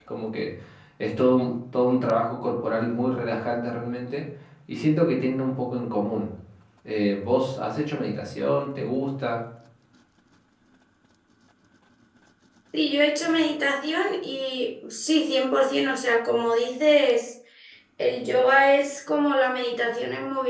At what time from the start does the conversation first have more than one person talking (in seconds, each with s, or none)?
none